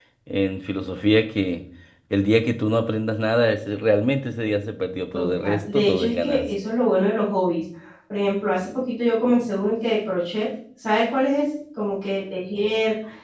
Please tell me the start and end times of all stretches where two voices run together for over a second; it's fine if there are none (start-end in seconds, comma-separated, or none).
5.1-6.5